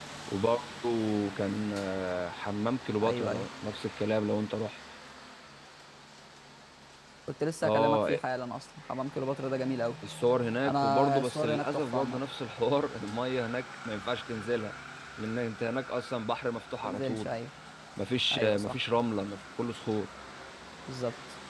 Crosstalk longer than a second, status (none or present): present